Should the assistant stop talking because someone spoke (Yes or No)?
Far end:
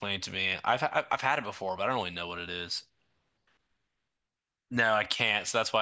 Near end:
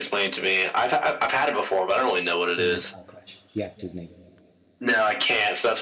Yes